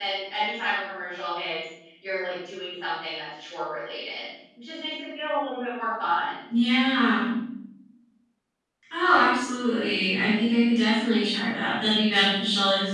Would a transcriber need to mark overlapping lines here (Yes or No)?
No